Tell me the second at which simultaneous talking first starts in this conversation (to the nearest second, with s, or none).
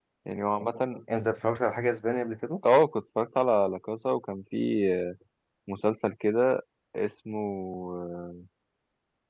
none